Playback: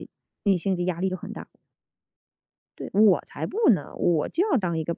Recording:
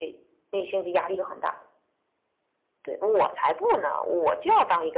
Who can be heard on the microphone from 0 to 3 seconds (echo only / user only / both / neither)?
echo only